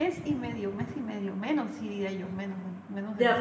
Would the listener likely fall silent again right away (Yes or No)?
No